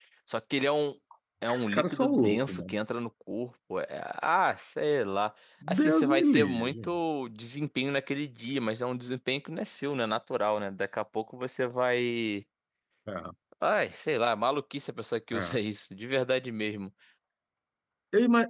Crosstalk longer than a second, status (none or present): present